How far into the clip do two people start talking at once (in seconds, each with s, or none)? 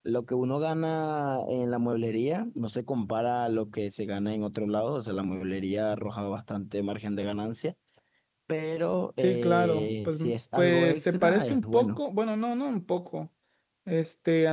9.2 s